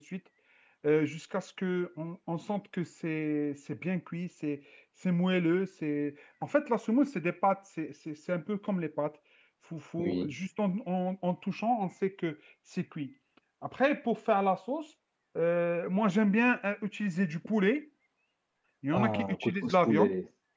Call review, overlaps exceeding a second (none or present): present